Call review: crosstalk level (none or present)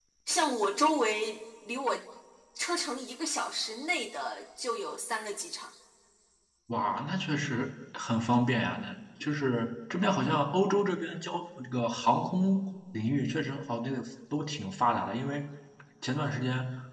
none